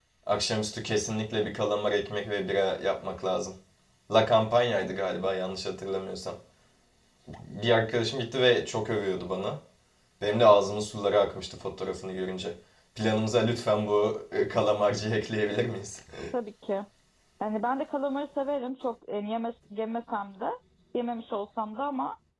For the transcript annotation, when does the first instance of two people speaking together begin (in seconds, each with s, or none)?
none